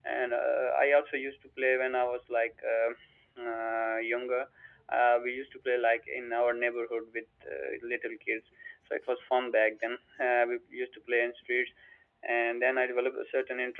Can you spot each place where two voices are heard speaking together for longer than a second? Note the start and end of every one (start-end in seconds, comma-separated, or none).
none